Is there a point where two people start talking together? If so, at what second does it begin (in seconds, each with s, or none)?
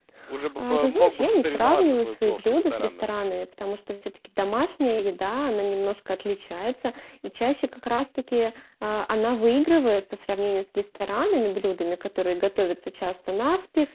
0.6 s